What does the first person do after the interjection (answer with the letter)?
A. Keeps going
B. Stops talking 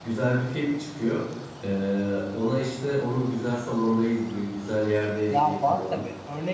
B